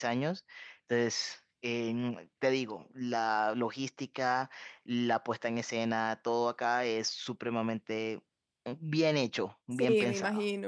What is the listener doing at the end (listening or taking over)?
taking over